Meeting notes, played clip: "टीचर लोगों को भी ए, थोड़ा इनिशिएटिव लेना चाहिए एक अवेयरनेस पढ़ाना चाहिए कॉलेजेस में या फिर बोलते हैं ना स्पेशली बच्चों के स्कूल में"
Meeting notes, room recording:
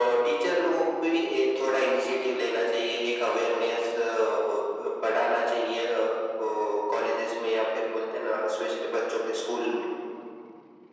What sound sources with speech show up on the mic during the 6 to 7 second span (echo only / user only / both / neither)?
echo only